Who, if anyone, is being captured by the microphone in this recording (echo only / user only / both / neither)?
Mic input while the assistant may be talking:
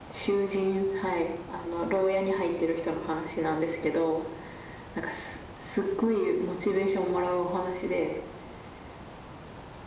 echo only